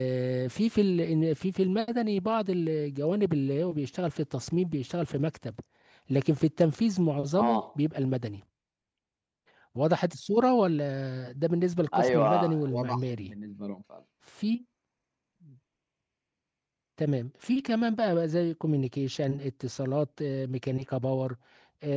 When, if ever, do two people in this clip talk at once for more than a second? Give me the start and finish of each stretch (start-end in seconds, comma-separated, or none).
11.9-13.3